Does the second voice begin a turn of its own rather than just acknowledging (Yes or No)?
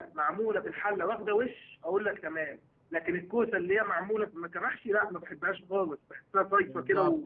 Yes